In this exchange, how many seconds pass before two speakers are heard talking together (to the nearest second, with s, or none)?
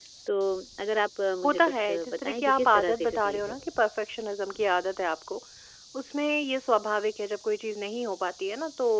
1 s